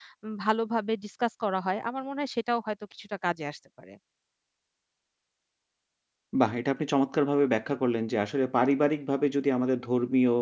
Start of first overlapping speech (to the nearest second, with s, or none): none